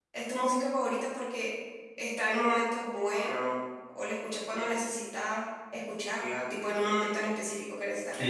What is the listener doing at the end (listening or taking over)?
taking over